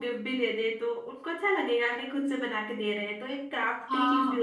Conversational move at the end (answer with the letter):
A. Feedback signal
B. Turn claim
B